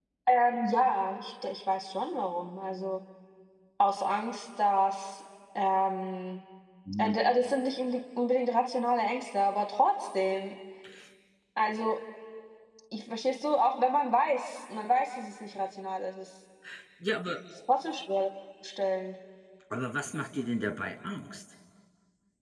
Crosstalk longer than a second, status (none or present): none